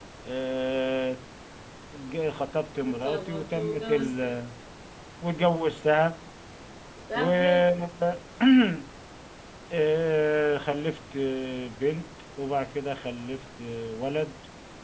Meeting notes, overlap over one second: present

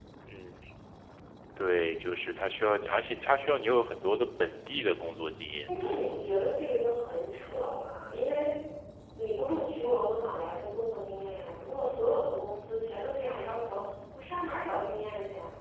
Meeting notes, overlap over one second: none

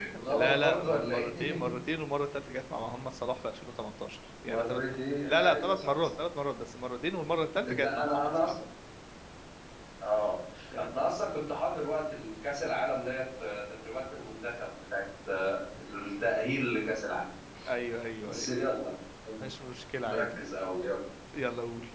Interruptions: present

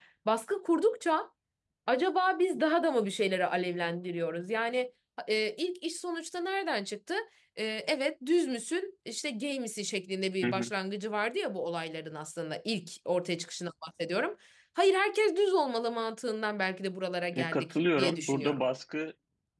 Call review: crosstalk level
present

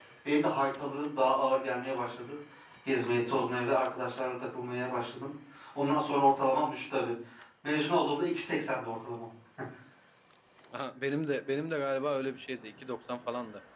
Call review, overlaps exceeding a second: none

